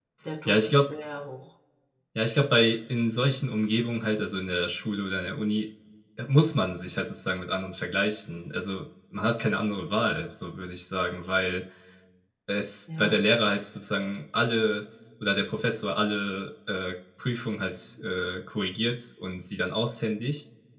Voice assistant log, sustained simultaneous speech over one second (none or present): none